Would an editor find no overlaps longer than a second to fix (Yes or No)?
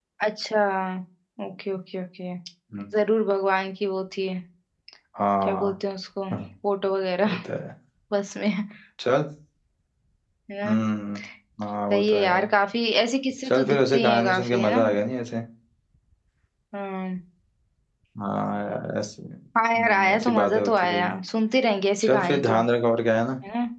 No